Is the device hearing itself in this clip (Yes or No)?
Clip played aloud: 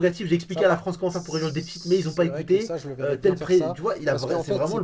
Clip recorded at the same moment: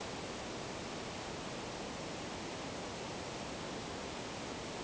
No